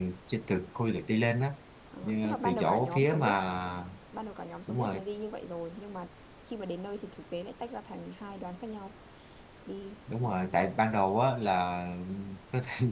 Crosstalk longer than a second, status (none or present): present